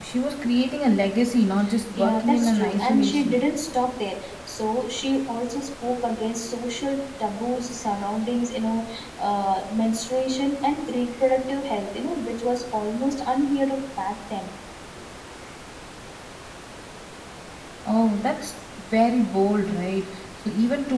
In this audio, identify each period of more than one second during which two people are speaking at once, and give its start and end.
1.9-3.4

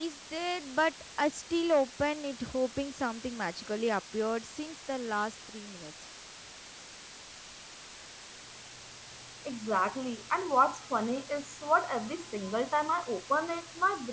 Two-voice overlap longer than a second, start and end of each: none

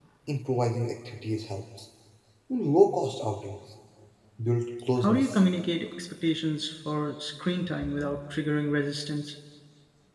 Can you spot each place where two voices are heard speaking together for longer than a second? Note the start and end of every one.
none

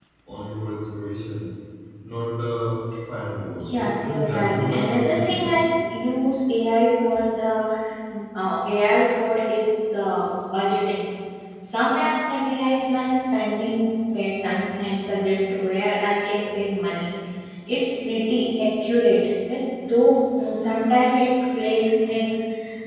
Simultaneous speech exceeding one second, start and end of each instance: 3.8-5.6

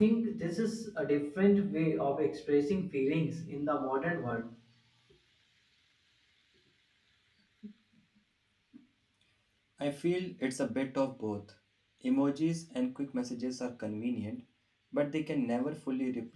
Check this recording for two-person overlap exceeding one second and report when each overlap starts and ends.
none

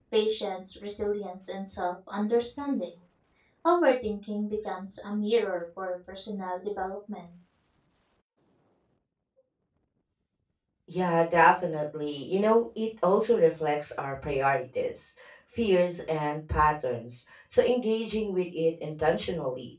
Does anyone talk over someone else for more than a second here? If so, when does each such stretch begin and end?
none

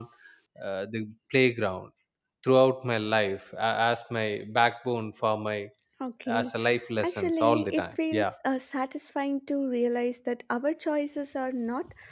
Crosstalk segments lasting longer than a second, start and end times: 7.0-8.2

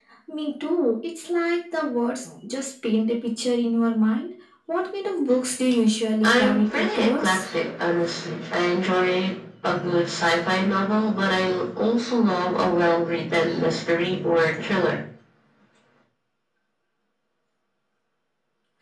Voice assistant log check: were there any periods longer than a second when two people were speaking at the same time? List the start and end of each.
6.2-7.4

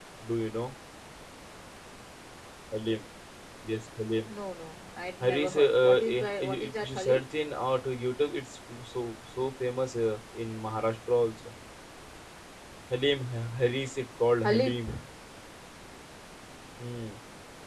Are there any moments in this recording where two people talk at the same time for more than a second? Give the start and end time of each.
5.2-7.2

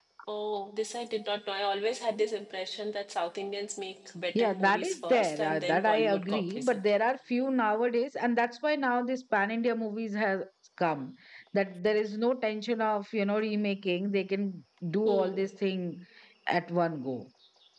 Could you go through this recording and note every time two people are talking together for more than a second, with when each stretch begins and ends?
4.3-6.8

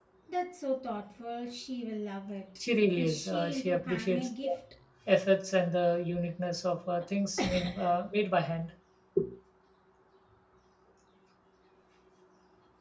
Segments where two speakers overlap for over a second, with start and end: 3.0-4.5

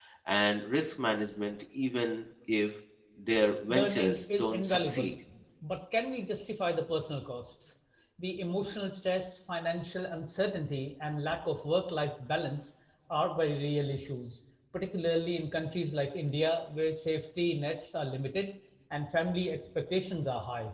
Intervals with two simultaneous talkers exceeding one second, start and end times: 3.7-5.1

